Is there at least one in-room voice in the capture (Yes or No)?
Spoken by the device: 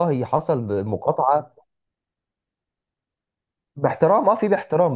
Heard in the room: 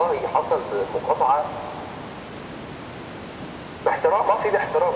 No